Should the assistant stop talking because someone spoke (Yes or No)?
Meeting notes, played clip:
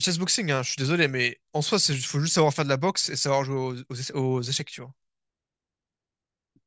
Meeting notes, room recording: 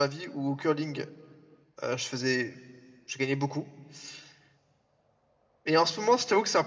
Yes